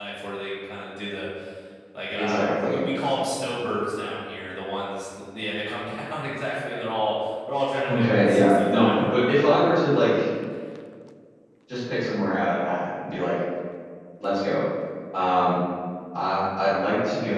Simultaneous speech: Yes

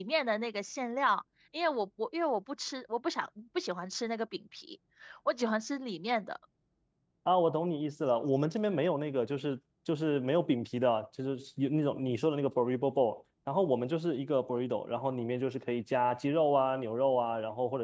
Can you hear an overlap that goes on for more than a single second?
No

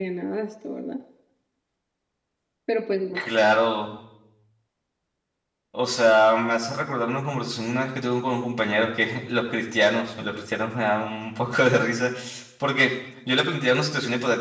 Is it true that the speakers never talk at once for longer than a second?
Yes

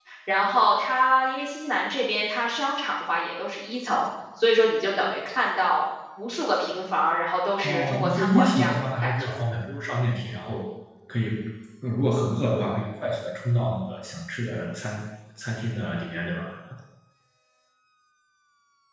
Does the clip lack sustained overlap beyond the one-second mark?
No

